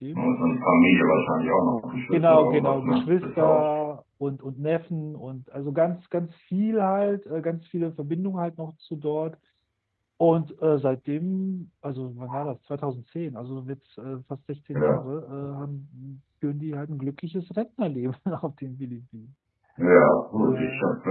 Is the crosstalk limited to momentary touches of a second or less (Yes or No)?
No